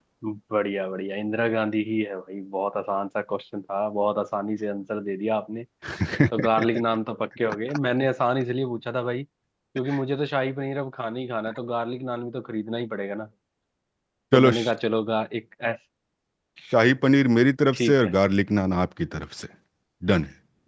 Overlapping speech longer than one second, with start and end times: none

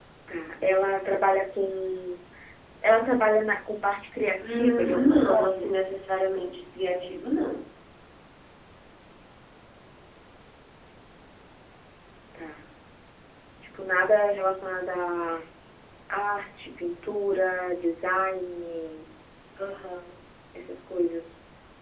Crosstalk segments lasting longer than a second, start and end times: 4.4-5.7

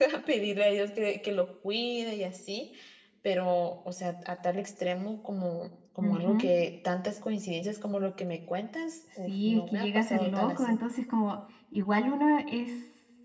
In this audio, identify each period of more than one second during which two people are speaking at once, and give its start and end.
9.3-10.8

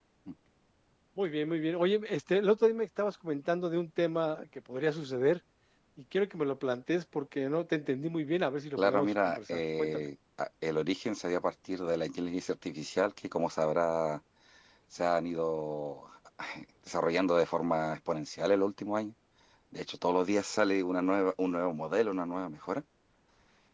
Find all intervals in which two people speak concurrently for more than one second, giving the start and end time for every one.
8.8-10.1

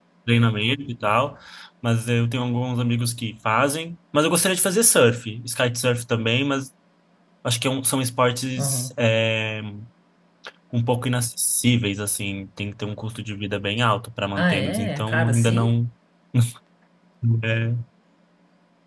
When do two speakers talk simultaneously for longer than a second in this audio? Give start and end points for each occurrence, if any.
14.4-15.7

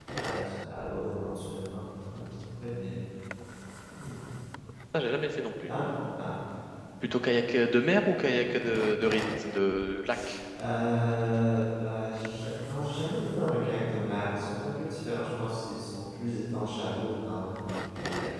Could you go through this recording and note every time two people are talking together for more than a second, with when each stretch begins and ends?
none

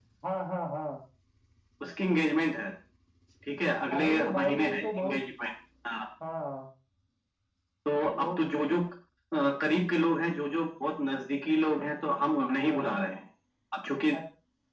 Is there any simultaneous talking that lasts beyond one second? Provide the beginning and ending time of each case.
3.9-5.2

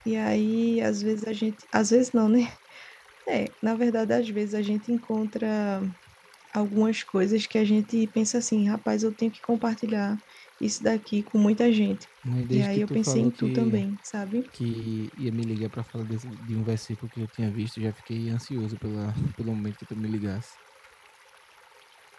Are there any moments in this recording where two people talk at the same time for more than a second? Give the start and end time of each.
12.5-13.8

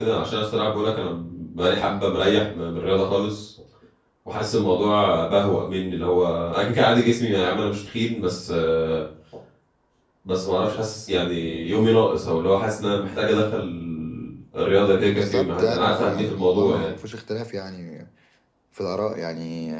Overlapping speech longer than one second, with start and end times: 15.0-16.9

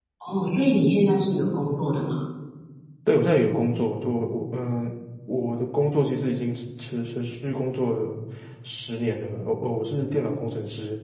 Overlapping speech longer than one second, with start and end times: none

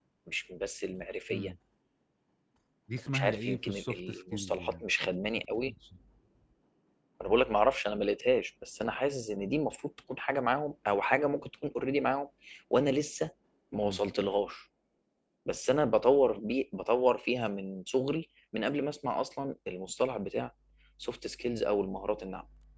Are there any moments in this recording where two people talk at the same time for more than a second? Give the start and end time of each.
3.1-4.9

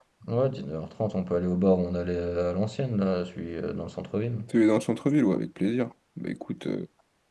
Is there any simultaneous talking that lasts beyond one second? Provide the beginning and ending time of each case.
none

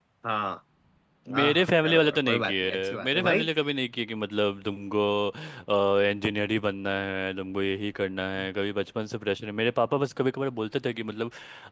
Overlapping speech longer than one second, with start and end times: 1.4-3.5

